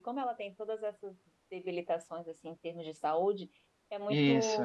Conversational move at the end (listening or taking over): listening